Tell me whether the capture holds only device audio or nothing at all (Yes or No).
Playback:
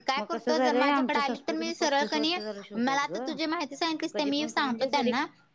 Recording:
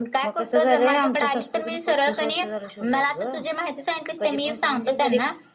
Yes